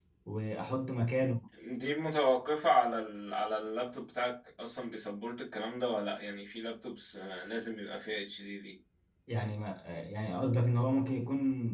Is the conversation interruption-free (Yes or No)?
Yes